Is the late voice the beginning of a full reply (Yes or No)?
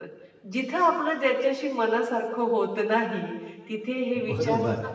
No